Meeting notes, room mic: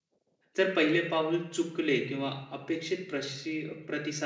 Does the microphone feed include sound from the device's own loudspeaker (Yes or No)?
No